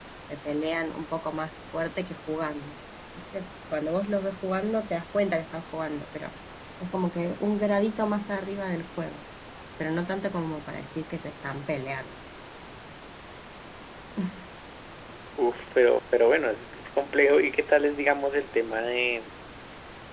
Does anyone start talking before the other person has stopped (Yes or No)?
No